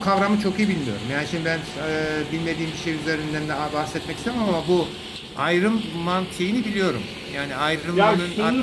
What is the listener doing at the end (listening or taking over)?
taking over